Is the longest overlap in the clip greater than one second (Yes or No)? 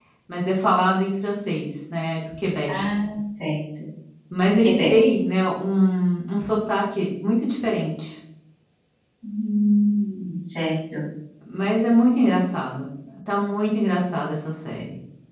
No